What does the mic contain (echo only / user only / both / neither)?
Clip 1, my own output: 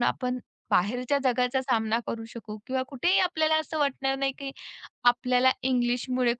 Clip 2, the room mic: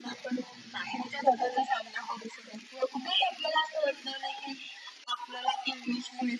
both